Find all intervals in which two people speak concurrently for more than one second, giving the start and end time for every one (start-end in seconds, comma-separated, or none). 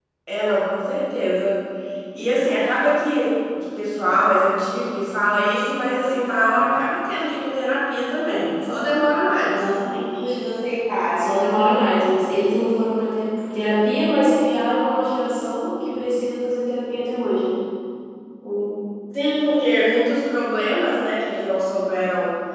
none